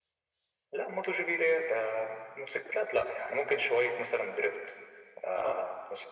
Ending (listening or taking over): listening